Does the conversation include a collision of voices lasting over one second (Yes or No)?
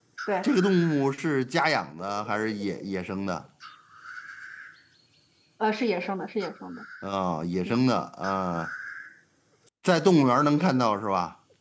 No